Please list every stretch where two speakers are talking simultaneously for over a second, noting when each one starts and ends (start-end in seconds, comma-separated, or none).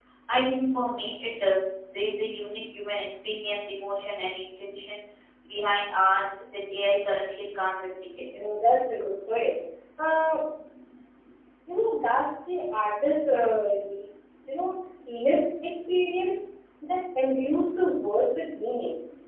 none